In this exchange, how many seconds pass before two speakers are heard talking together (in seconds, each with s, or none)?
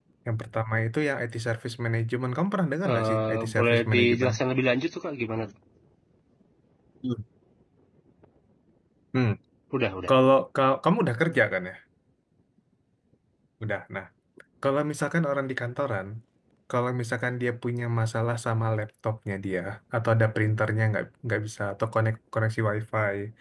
2.8 s